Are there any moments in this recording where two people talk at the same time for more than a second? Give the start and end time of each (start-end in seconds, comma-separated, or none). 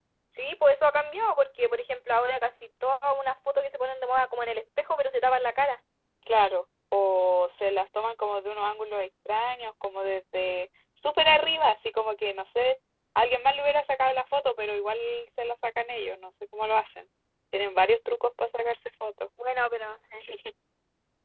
none